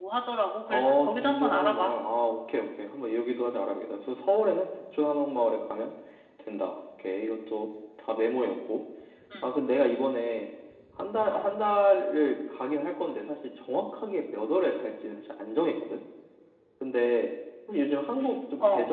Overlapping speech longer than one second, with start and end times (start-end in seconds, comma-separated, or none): 0.7-1.9